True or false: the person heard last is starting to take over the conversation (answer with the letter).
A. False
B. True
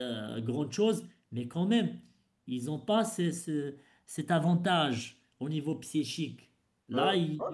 B